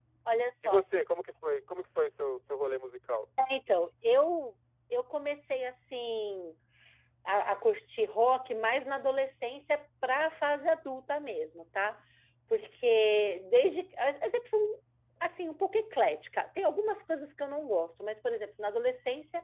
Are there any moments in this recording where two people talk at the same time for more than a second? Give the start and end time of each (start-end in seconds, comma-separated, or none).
none